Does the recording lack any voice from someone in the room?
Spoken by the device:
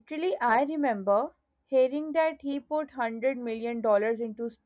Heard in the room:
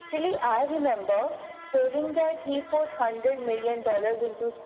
Yes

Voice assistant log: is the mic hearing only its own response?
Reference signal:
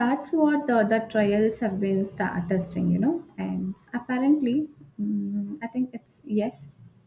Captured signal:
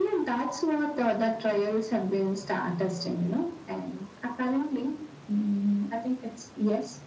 Yes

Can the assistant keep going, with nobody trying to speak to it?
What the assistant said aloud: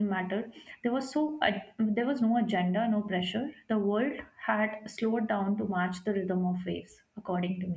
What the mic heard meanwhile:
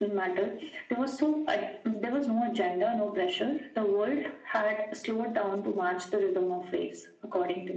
Yes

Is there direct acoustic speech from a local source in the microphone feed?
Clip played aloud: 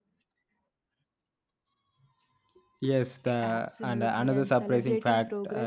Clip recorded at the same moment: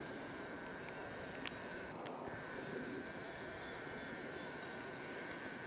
No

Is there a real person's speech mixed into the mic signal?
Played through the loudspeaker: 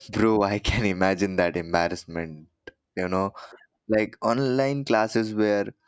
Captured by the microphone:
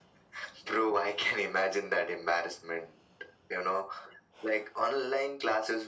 No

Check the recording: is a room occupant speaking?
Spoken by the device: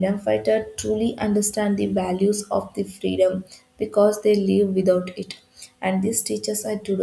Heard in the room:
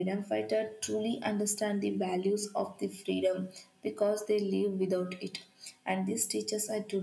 No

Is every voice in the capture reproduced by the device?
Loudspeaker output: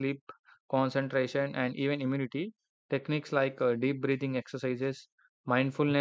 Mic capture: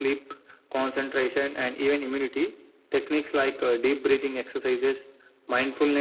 Yes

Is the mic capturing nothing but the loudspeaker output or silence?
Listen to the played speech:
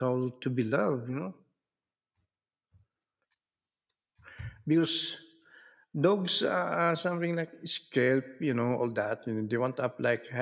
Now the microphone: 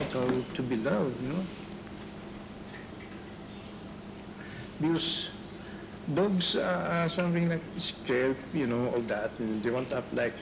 Yes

